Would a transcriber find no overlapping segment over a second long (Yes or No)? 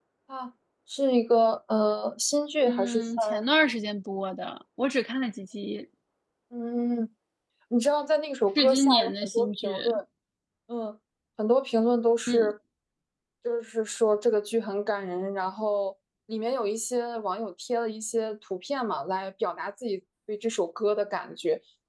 No